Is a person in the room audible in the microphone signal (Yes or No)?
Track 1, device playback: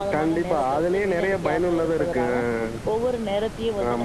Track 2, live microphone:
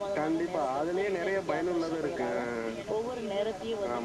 Yes